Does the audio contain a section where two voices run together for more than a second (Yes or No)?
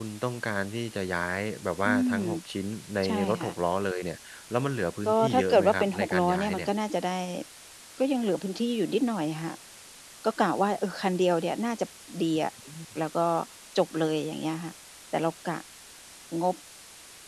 Yes